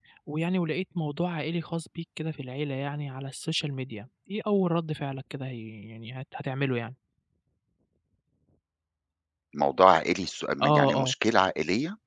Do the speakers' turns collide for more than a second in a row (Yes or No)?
No